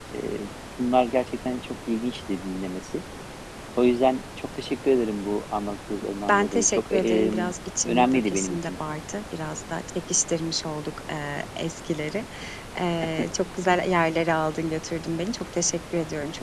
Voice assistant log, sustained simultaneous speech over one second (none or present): present